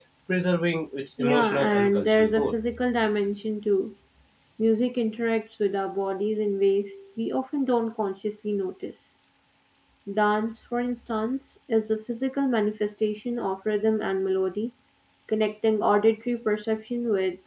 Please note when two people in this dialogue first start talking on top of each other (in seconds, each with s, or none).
1.2 s